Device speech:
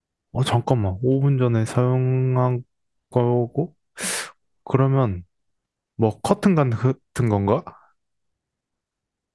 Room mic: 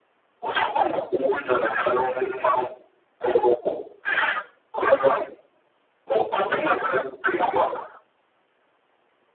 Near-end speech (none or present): none